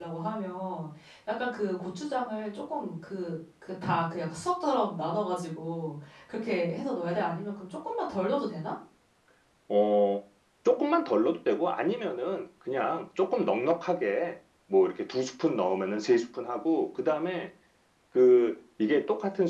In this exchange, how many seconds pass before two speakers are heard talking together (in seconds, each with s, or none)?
none